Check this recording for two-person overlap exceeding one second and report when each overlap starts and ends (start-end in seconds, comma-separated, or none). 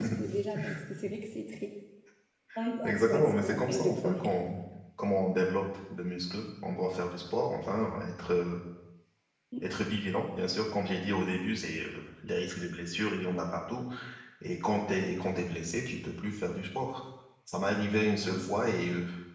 2.8-4.2